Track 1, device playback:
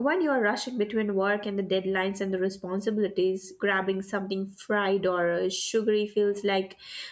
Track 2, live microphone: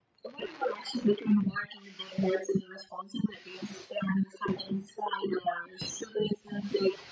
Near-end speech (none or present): none